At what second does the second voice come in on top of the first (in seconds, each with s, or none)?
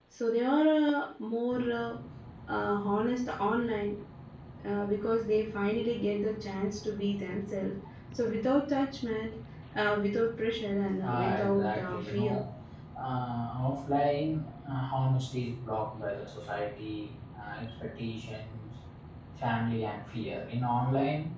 11.0 s